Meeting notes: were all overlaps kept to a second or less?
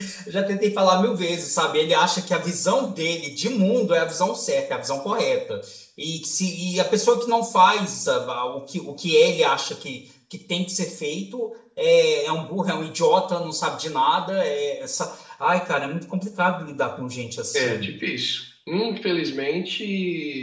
Yes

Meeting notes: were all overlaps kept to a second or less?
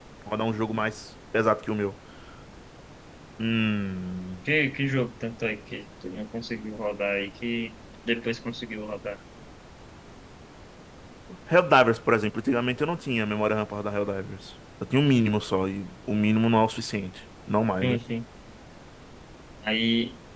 Yes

